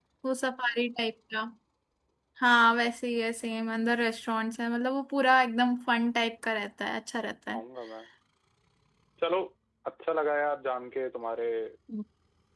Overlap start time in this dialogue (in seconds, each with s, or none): none